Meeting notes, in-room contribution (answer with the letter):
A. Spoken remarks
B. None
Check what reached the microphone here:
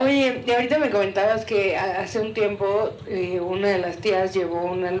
B